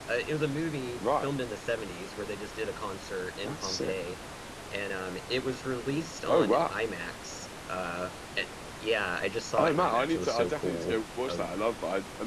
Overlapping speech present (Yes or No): Yes